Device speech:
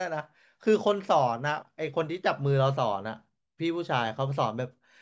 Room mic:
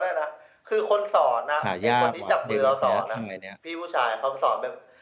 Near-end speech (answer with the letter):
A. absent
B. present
B